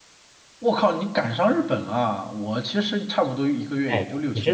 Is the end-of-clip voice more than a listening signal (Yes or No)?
Yes